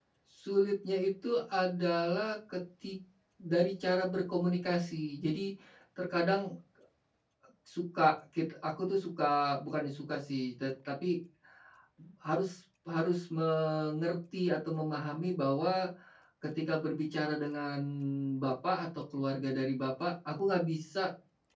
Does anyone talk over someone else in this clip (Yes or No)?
No